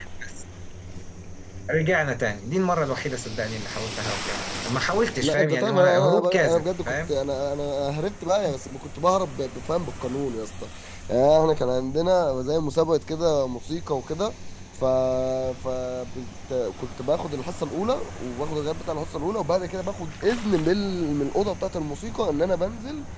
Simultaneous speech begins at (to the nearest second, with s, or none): 5 s